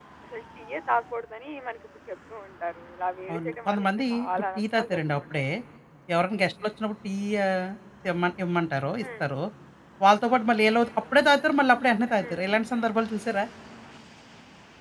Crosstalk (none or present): present